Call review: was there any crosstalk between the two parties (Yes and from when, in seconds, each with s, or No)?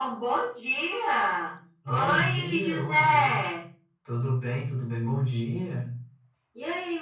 Yes, from 1.8 s